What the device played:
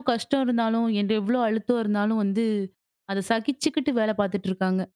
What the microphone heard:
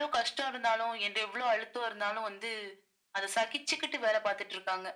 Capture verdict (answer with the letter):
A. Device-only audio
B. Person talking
A